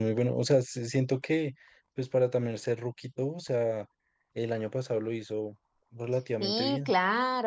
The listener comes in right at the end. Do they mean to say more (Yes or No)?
Yes